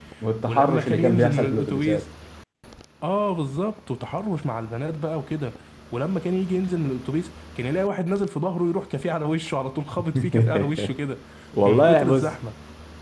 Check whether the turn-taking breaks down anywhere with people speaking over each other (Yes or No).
Yes